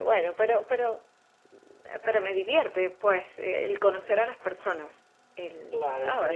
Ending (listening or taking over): taking over